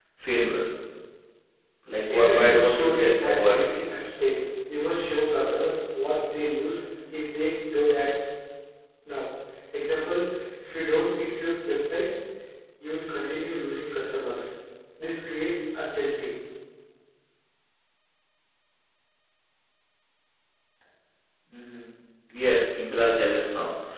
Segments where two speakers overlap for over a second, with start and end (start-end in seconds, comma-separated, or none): 2.1-3.7